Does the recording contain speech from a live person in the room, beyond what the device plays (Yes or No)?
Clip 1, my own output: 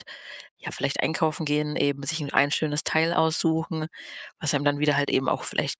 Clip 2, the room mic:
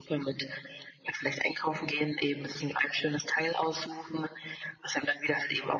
No